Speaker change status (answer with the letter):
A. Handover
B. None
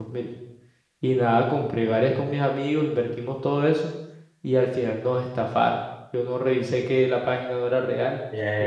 A